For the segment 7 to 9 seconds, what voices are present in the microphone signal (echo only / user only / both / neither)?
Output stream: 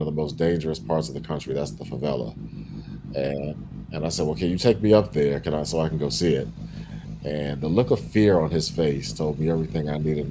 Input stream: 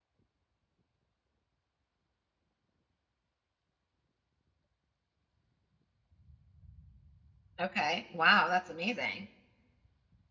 user only